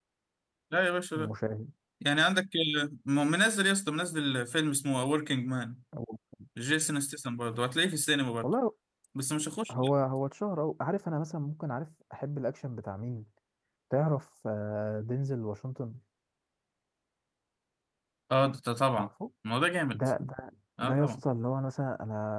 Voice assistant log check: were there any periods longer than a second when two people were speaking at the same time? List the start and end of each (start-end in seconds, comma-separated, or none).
none